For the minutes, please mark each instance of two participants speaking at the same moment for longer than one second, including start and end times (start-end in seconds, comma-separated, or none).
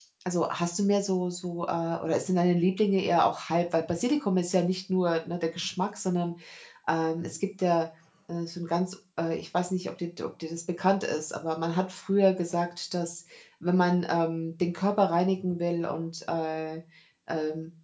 none